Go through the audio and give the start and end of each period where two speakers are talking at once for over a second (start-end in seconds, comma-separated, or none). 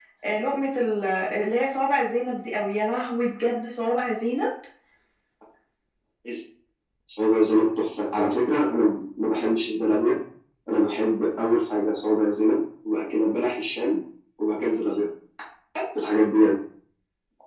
none